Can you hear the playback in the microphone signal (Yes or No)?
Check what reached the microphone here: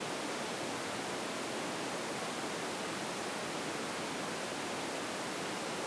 No